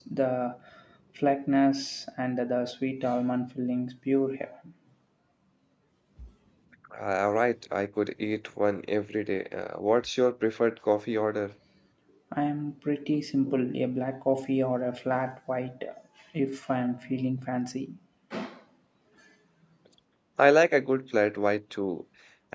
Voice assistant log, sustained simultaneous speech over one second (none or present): none